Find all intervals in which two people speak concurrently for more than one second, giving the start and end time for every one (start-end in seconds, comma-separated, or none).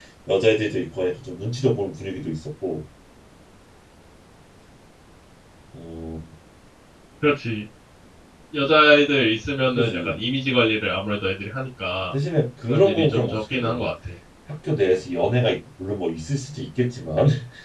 12.7-13.9